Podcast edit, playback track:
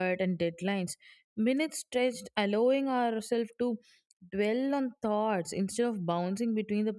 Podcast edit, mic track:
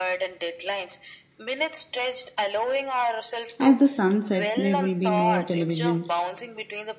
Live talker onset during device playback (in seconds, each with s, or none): 3.6 s